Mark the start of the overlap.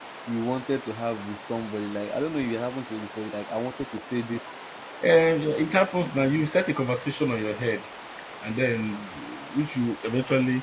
none

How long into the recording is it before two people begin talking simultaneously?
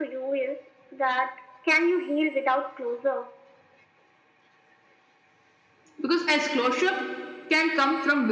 none

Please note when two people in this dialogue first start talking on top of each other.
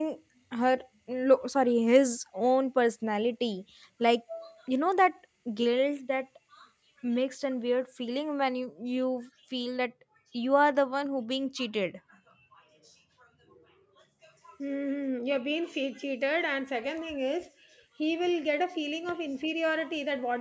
none

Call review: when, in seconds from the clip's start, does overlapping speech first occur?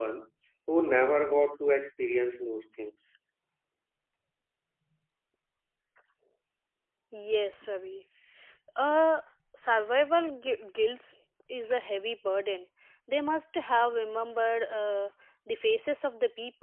none

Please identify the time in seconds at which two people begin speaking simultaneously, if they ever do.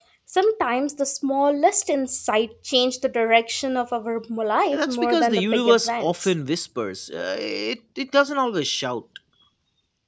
5 s

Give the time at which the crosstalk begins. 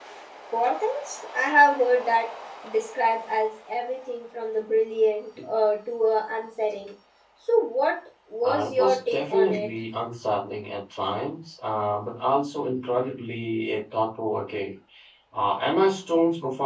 8 s

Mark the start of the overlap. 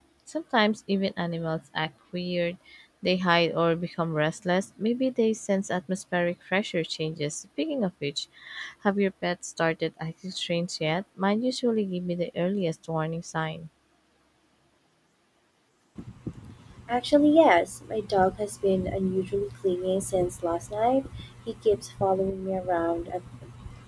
none

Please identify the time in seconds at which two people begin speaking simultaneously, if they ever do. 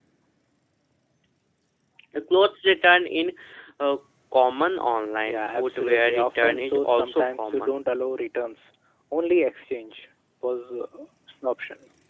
5 s

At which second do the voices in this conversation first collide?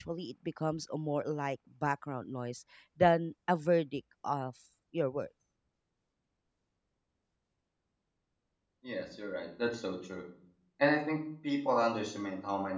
none

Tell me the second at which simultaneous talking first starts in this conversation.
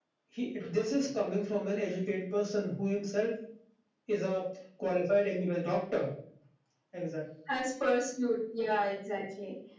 none

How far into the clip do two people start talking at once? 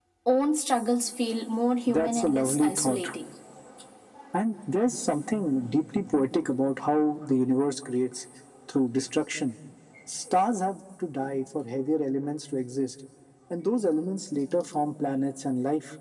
2 s

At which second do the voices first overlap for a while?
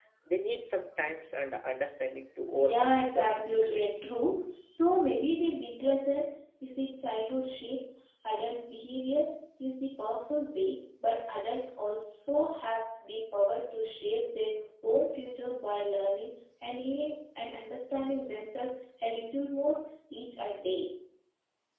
3 s

